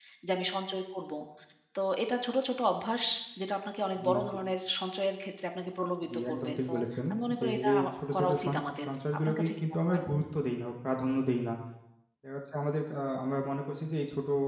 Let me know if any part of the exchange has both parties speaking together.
Yes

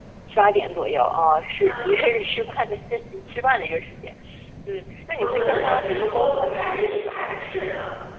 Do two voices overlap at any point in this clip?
Yes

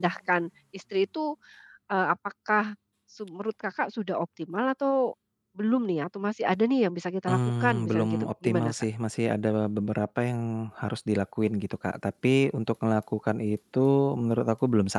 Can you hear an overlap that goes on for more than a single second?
Yes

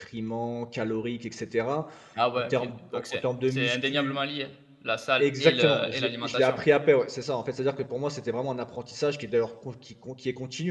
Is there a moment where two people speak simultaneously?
Yes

